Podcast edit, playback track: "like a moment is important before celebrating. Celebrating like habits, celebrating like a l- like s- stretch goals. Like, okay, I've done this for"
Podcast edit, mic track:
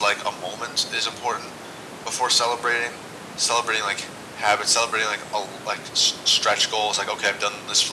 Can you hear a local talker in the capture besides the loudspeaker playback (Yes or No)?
No